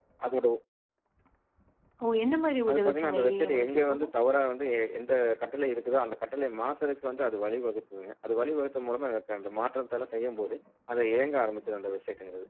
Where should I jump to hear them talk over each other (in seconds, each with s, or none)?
2.7 s